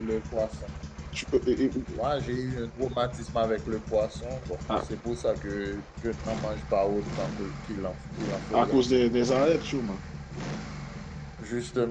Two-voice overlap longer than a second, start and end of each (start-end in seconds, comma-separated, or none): none